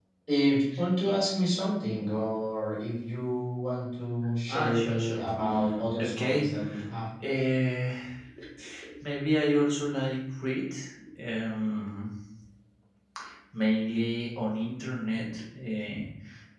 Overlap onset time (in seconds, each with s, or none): 4.5 s